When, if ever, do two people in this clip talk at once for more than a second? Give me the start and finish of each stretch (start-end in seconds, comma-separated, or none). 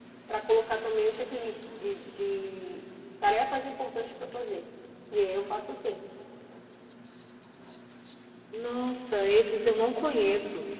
none